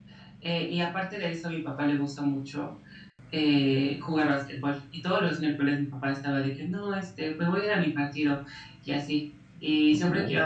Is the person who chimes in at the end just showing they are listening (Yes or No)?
Yes